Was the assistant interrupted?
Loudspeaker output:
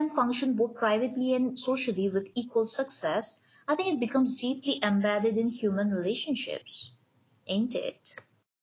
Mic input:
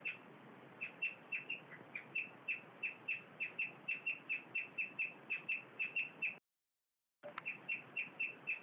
No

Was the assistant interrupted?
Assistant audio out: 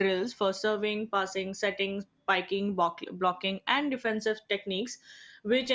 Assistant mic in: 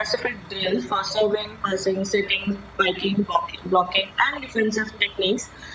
No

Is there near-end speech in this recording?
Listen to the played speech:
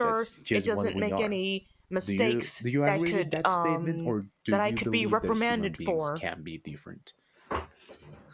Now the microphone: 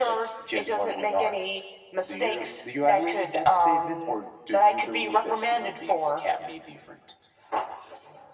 No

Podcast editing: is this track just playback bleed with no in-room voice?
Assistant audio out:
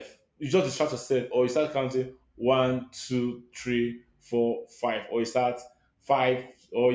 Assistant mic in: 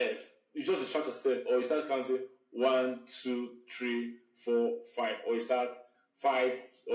Yes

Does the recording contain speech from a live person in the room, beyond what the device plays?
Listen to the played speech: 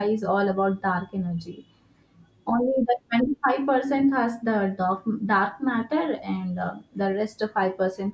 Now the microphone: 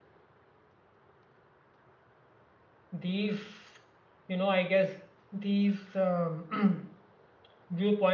Yes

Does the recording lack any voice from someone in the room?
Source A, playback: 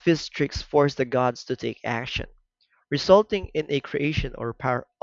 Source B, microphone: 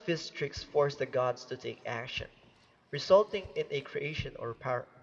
Yes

